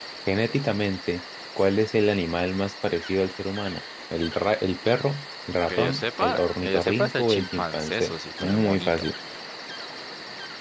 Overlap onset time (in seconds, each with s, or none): 5.6 s